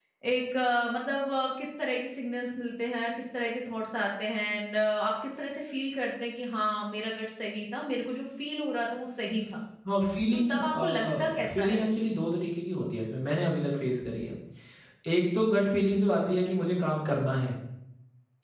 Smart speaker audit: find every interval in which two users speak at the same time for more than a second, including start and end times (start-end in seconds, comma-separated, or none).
10.5-11.8